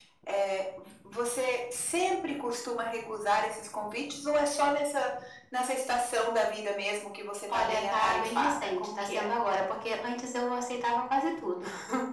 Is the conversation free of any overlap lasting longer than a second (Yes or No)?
No